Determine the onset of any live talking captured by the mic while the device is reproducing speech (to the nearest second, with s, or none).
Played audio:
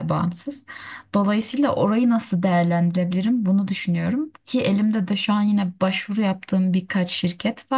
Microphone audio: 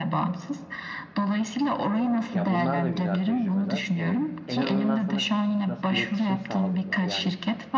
2 s